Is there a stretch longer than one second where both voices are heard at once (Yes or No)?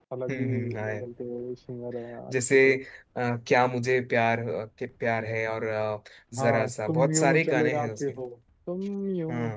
Yes